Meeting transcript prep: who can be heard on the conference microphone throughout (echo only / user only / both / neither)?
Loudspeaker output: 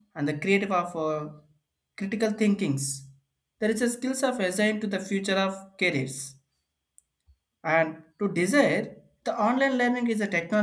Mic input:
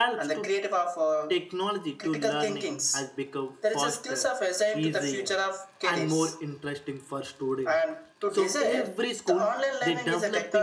both